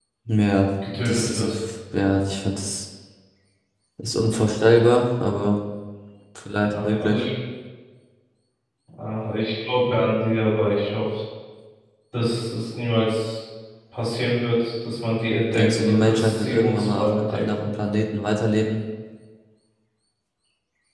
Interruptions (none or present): present